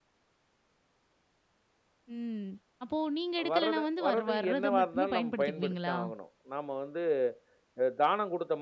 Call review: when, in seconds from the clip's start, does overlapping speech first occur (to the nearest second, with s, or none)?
3 s